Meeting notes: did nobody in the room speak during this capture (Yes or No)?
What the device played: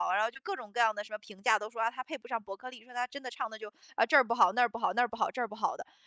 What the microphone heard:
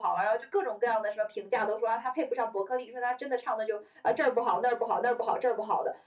Yes